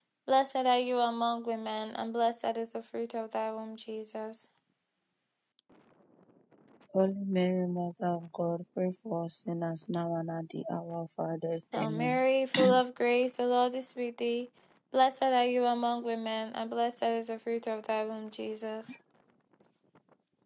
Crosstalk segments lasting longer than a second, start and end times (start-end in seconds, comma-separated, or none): none